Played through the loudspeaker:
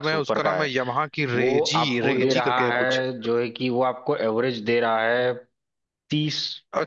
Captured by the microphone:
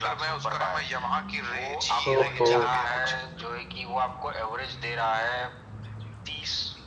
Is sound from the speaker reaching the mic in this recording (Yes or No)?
Yes